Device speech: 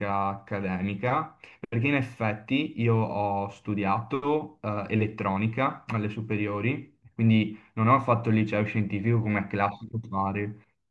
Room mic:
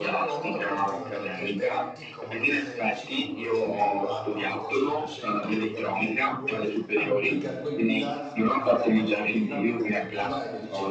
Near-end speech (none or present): present